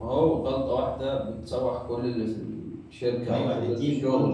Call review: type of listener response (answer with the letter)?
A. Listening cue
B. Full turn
B